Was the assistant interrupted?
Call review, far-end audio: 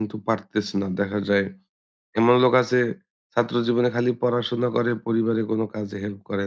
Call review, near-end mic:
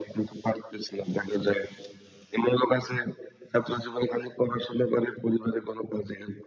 No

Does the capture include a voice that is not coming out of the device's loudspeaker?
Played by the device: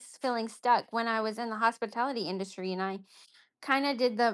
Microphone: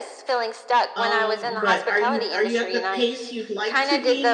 Yes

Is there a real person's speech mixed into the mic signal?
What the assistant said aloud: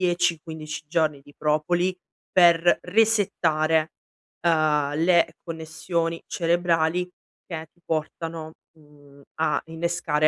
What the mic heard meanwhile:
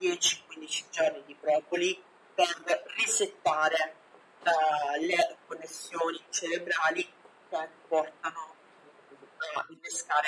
No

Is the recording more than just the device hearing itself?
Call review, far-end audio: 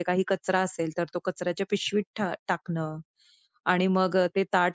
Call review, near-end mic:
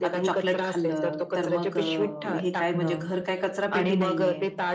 Yes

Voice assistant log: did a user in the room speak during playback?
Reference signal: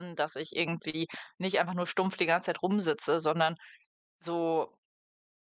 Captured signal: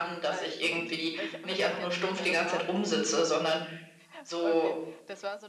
Yes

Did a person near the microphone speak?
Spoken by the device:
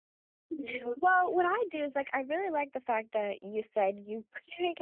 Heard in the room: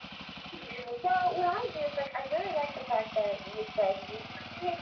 No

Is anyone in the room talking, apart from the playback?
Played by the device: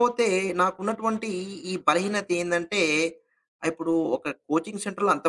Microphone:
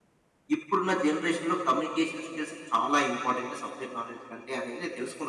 Yes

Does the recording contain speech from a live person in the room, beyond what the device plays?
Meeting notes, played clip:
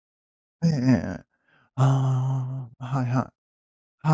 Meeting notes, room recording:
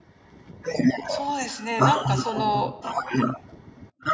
Yes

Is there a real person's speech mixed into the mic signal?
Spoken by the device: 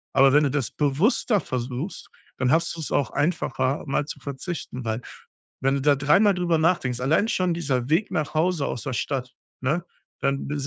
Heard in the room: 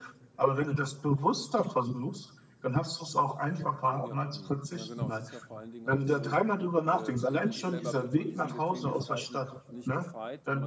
Yes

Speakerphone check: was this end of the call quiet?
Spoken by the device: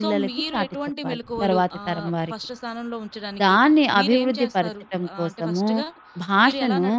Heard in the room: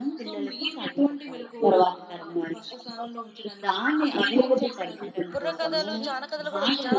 No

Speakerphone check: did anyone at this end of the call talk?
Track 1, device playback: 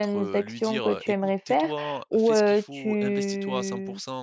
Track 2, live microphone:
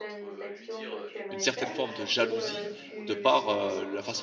Yes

